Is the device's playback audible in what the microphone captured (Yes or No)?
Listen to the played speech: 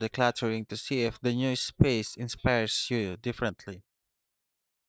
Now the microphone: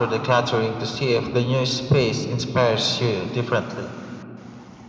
Yes